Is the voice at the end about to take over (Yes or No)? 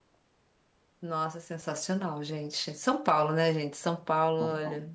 No